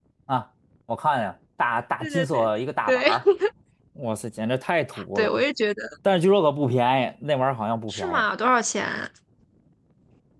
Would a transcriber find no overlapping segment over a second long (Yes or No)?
Yes